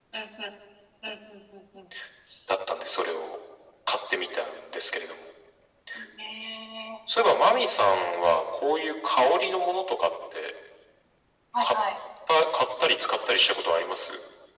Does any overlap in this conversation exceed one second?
No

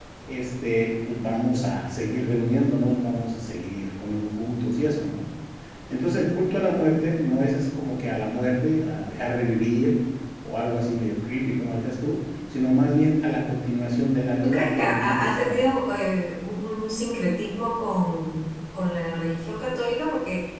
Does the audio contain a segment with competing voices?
Yes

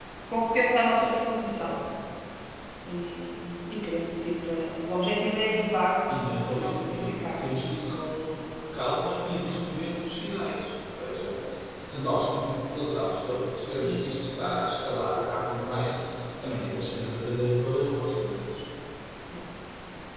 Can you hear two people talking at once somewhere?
Yes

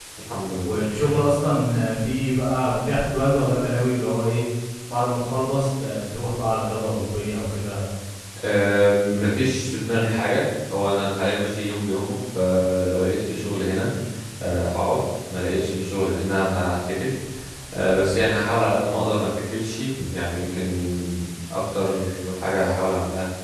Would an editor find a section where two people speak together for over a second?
No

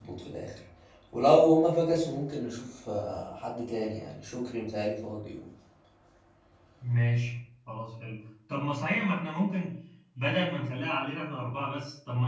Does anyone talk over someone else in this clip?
No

